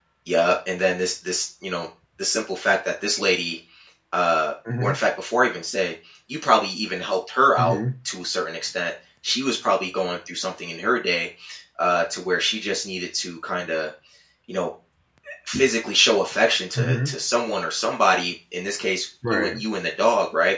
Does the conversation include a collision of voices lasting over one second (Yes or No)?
No